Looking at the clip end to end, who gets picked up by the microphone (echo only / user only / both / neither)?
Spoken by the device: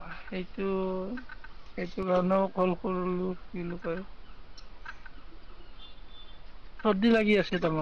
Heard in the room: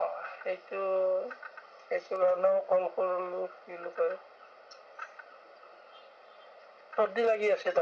echo only